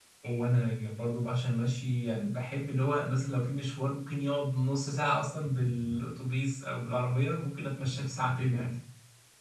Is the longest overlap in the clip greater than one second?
No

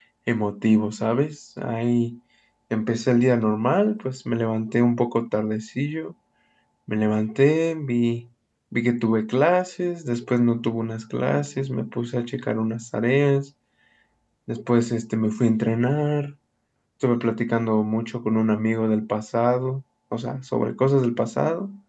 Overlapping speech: No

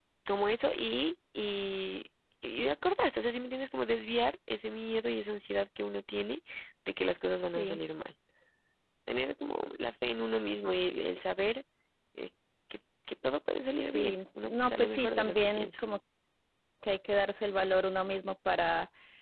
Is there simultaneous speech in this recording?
Yes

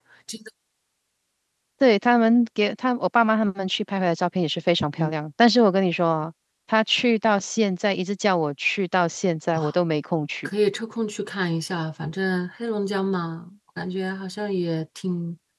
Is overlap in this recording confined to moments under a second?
Yes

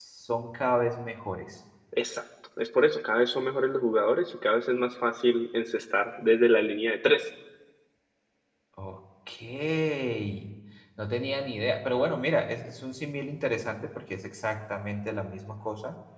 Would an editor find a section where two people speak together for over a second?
No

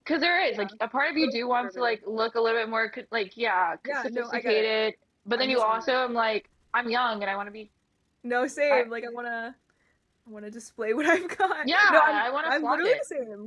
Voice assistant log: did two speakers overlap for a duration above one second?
Yes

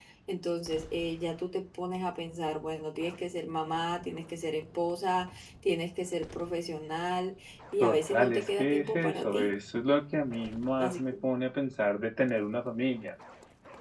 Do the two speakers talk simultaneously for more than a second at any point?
Yes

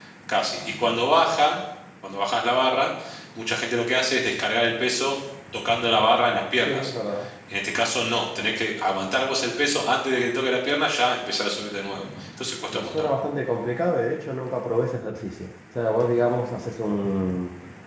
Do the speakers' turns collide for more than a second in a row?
No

